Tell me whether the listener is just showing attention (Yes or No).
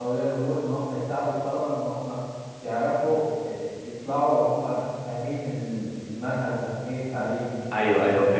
No